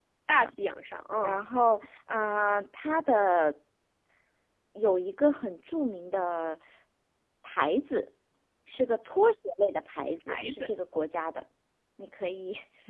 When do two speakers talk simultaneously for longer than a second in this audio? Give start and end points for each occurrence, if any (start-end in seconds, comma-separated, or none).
none